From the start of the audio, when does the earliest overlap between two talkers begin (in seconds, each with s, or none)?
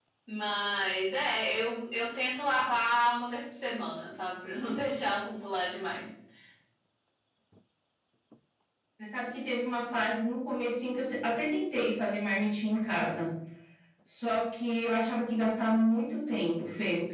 none